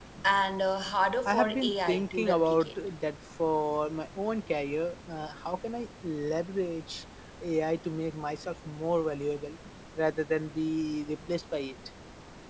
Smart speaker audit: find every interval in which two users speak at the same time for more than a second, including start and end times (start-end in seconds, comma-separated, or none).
1.2-2.7